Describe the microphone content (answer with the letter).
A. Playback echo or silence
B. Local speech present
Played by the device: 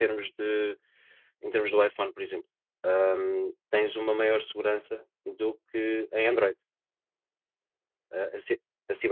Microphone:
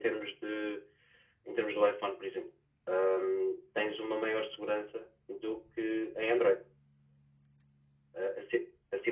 A